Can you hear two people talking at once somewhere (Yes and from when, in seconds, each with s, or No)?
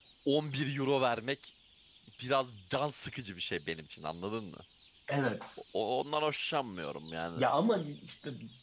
No